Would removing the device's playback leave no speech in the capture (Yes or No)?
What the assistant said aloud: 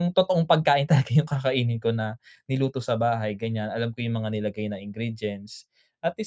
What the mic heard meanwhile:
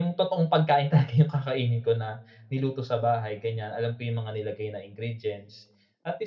Yes